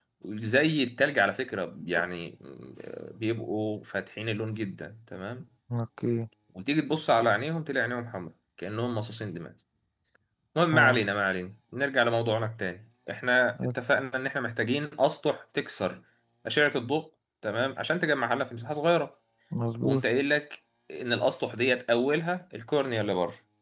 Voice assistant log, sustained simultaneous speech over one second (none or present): none